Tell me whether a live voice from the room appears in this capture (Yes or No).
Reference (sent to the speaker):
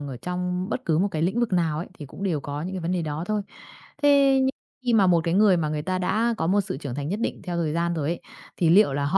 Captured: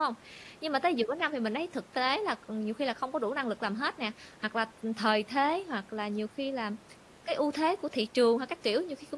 Yes